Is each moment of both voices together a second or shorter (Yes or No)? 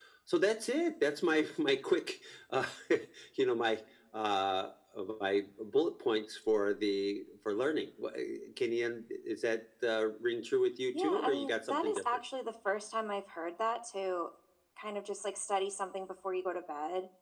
No